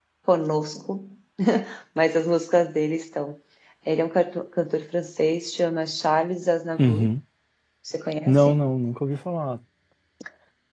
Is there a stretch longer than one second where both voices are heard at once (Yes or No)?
No